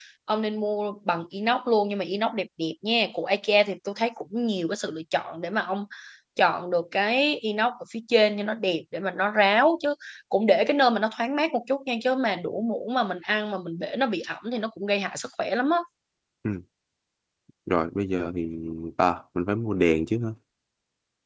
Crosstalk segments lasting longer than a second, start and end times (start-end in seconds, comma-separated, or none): none